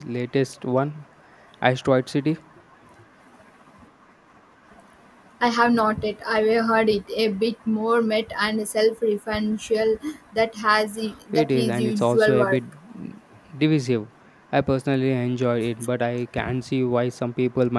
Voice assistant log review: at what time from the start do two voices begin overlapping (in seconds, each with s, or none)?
11.3 s